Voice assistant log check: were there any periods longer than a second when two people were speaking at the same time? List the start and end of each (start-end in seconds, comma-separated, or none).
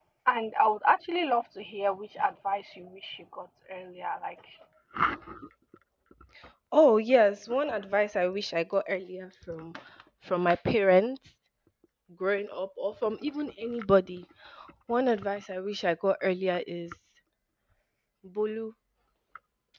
none